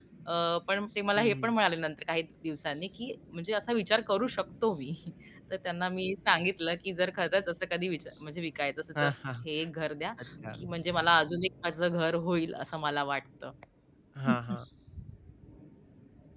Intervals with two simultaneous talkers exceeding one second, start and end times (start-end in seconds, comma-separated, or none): none